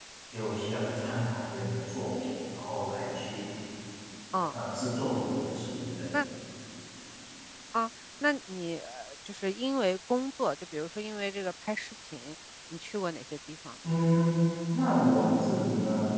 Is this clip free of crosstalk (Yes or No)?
Yes